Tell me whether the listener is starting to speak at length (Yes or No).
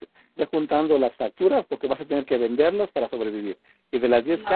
No